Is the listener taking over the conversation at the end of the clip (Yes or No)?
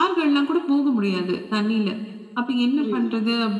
No